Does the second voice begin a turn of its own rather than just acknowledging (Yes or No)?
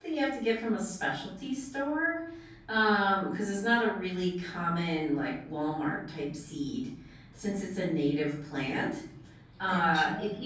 No